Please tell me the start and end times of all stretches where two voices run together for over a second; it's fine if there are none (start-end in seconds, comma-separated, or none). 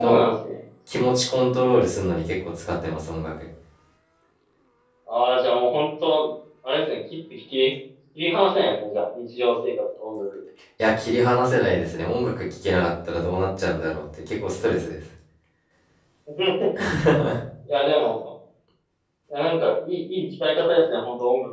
none